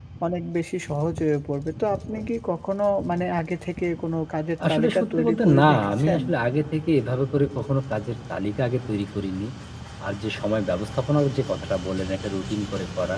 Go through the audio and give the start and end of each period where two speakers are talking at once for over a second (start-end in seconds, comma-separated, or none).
4.7-6.2